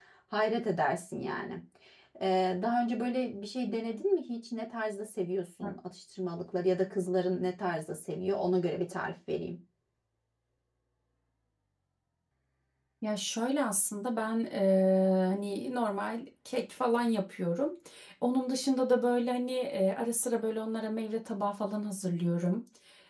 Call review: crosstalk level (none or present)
none